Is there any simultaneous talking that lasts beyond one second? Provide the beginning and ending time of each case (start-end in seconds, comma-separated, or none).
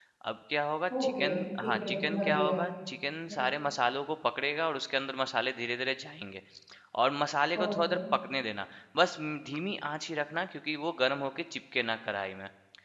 1.0-2.6